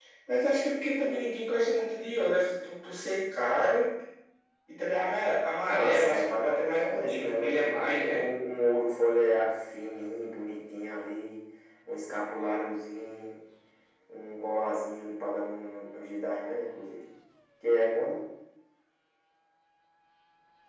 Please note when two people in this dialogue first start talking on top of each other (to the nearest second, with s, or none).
6 s